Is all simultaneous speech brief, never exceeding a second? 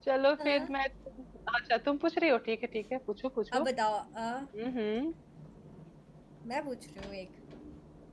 Yes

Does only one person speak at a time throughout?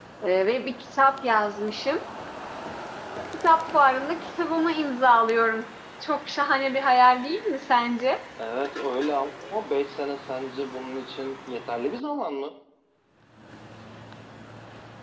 Yes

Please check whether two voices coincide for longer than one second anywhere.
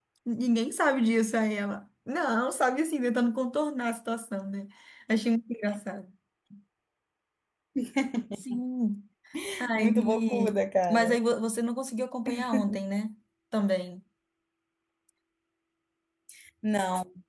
Yes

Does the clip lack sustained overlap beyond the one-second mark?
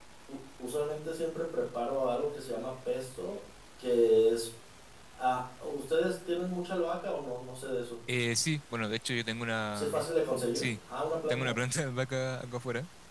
Yes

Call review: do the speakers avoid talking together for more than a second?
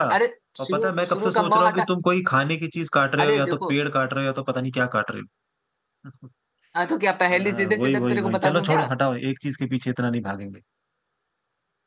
No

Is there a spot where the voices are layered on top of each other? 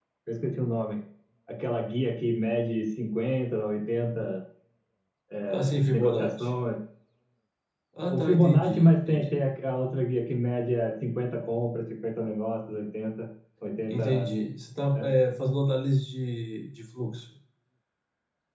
Yes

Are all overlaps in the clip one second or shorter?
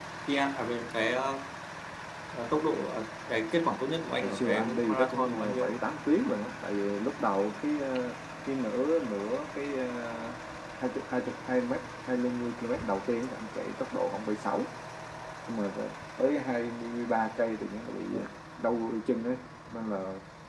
No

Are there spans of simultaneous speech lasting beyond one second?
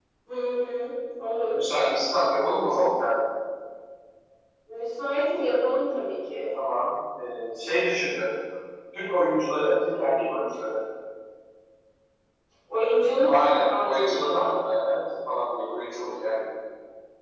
Yes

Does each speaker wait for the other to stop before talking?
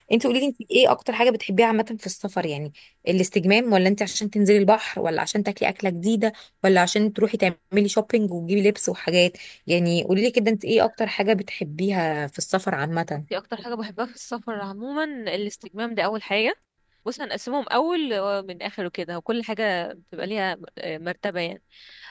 Yes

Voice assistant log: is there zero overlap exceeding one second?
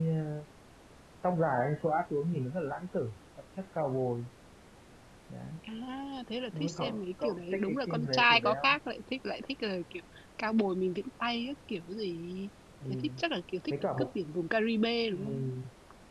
No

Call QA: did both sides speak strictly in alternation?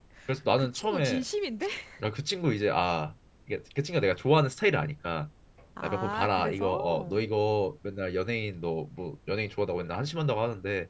No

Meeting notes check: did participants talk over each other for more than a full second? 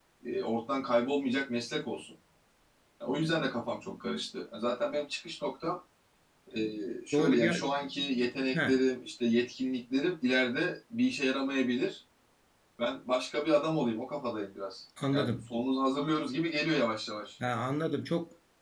No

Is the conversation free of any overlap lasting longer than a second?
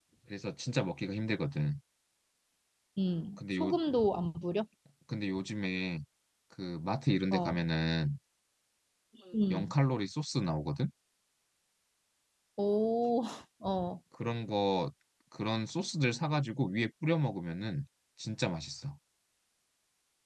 Yes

